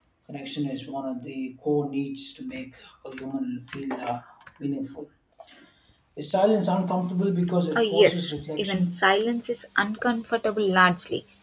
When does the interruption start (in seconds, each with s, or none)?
7.7 s